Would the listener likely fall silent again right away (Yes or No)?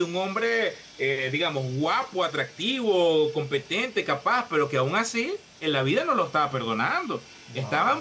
Yes